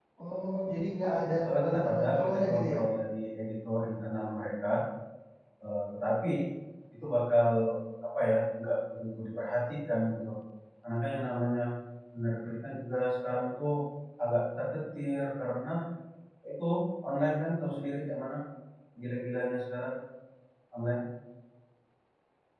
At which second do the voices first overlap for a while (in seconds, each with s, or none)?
1.4 s